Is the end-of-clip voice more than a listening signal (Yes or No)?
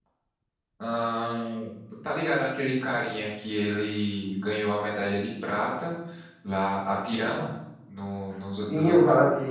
Yes